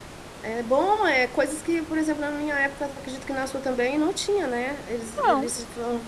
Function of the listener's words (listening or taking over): listening